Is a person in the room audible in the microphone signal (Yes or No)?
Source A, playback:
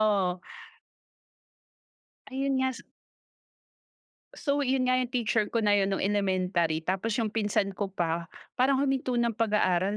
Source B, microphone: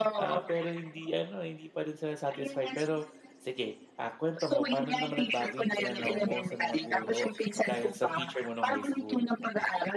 Yes